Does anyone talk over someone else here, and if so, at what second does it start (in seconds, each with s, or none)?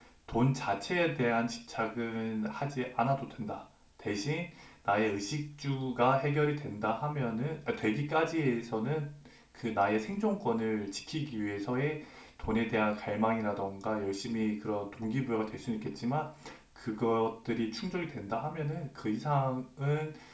none